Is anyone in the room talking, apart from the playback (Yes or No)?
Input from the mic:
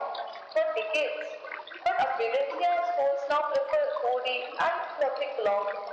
No